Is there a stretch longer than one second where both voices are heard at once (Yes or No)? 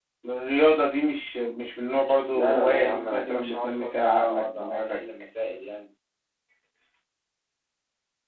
Yes